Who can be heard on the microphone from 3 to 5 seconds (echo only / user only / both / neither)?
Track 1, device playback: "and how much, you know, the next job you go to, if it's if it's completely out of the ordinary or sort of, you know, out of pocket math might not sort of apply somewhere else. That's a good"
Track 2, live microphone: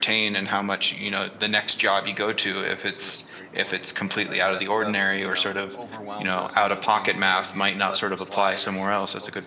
both